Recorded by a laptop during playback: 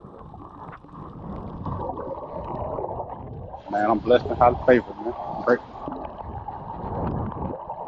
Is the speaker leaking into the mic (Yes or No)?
No